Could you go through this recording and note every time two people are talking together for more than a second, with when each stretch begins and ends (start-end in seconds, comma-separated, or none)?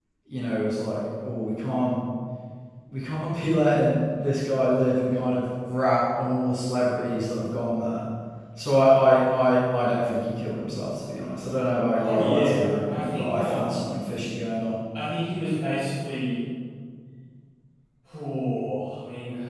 12.0-13.8